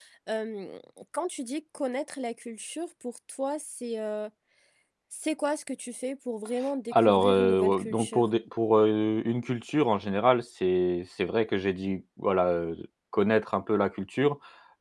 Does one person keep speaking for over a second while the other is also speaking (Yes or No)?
Yes